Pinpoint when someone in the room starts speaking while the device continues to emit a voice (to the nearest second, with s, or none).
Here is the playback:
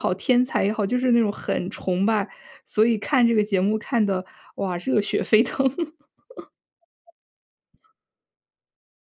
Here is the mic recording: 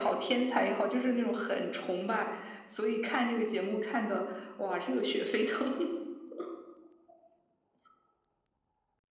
none